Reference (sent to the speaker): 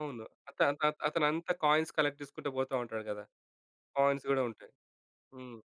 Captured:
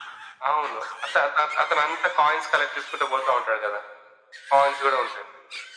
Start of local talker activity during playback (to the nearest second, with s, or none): none